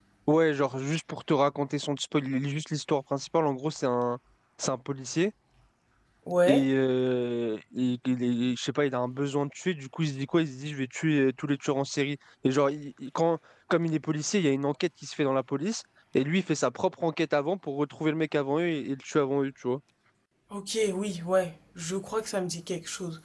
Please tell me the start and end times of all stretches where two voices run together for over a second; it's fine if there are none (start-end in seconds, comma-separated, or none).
none